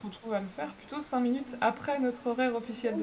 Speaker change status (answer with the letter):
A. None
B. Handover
B